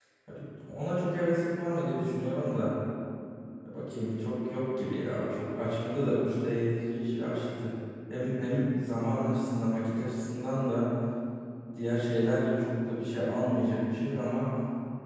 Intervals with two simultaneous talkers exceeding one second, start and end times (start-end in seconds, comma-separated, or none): none